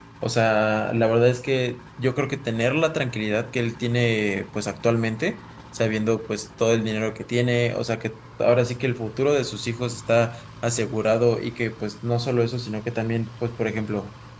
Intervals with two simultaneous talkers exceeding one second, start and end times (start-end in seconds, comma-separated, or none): none